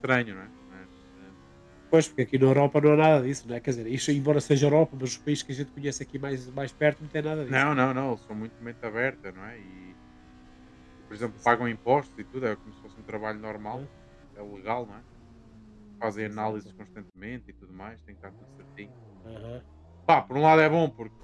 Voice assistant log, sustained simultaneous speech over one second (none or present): none